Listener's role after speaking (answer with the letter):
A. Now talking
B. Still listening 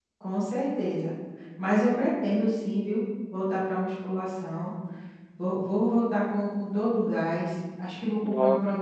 B